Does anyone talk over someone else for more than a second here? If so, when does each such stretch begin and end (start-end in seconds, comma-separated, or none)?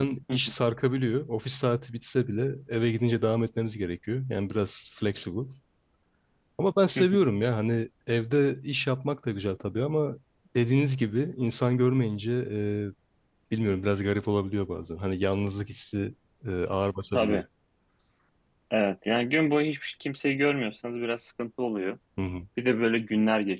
none